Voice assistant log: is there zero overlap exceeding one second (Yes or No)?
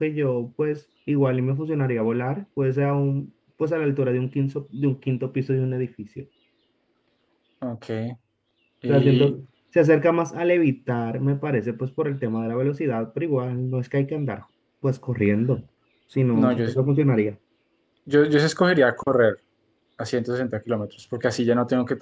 Yes